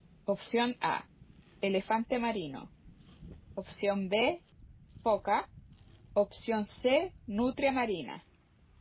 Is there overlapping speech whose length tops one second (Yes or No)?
No